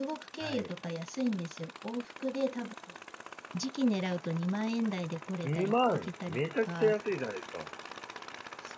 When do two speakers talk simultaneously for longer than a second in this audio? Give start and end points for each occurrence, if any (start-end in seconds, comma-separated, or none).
5.4-6.9